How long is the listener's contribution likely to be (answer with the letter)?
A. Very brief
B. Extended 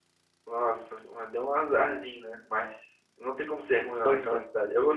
A